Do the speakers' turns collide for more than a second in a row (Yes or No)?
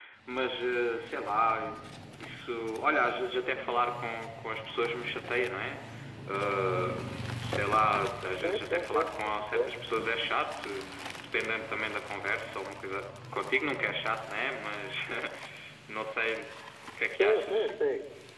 Yes